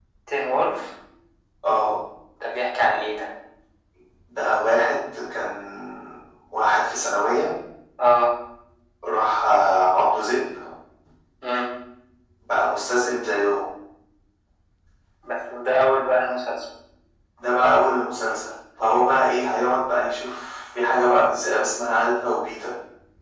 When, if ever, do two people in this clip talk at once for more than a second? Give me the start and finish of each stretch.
none

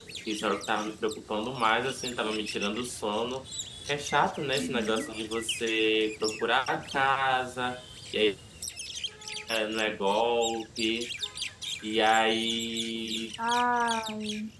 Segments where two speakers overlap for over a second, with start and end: none

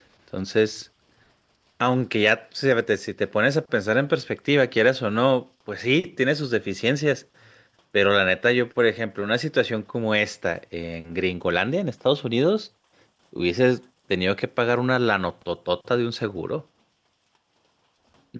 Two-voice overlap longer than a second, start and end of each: none

